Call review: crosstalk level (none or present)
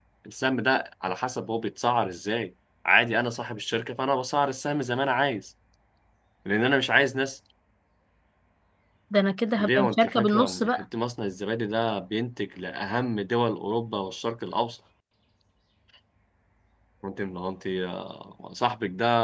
present